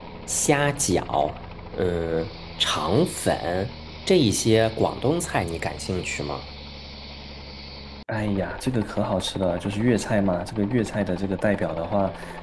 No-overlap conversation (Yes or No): Yes